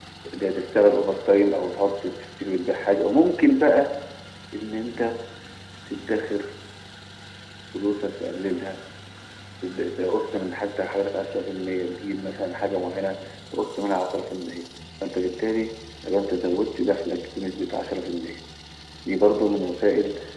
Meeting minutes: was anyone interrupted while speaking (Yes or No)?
No